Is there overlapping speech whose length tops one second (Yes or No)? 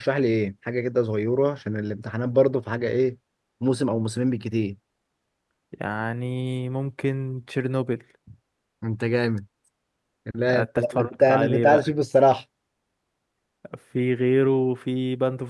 Yes